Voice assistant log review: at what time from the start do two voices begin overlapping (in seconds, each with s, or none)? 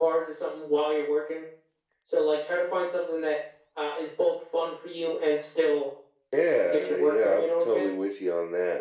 6.6 s